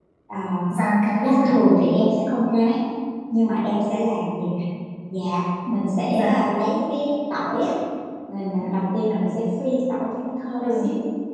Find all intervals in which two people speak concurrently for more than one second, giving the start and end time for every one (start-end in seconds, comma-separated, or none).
none